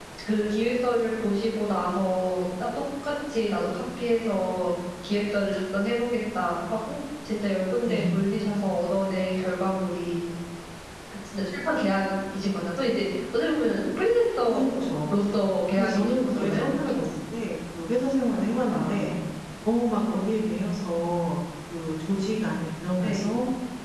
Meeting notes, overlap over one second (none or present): present